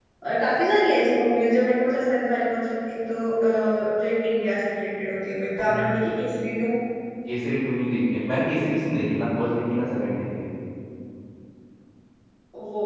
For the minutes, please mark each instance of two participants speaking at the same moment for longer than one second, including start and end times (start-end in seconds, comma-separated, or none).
none